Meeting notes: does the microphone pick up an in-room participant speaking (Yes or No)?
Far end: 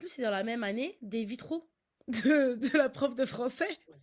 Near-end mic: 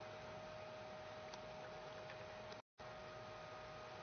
No